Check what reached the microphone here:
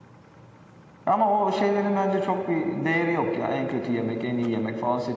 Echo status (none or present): none